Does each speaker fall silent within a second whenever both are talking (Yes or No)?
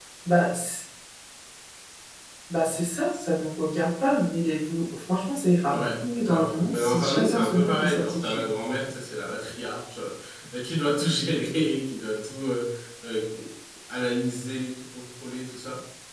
No